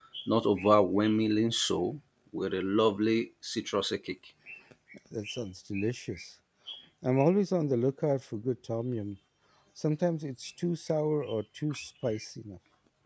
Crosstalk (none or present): none